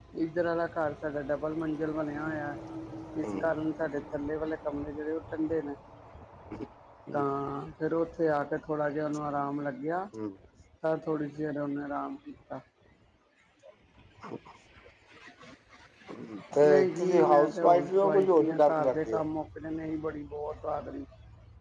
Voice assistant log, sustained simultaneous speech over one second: present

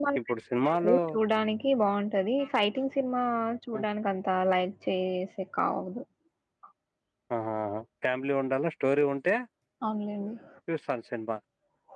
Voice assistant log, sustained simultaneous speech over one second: none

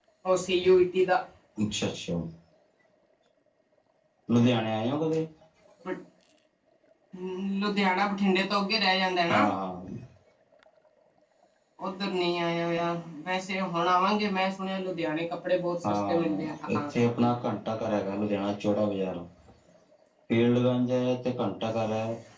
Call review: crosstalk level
present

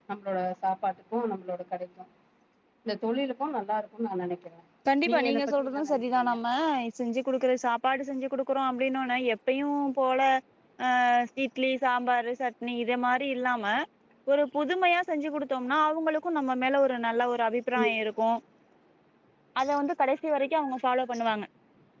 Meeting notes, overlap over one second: present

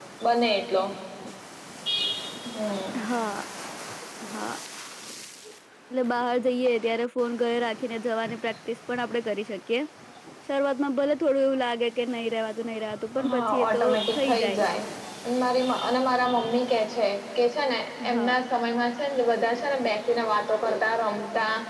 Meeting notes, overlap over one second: present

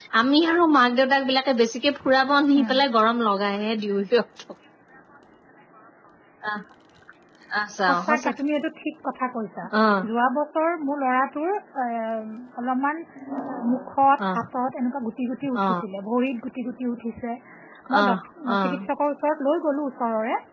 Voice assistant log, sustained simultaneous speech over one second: none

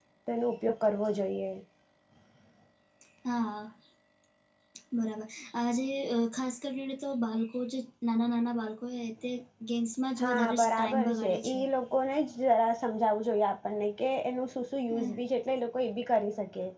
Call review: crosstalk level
present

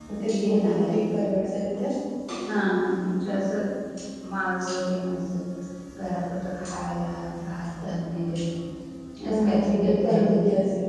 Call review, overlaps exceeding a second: present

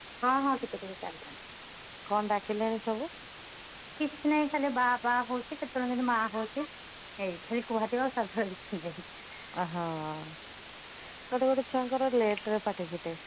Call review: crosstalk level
none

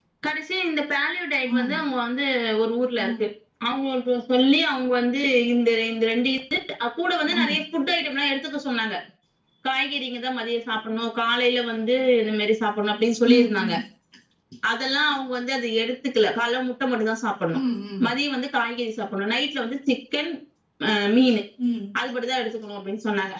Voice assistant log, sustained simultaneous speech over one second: none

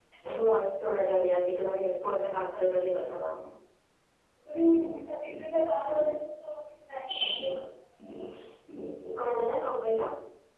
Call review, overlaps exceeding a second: none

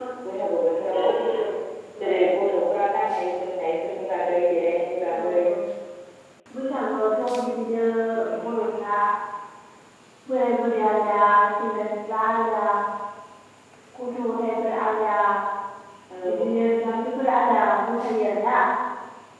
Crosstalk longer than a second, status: none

